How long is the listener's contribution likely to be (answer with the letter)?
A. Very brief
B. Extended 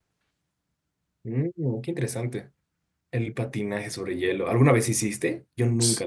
B